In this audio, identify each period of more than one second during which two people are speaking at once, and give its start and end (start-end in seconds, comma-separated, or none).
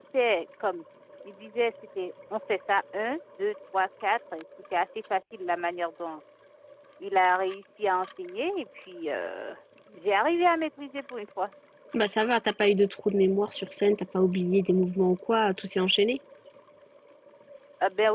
none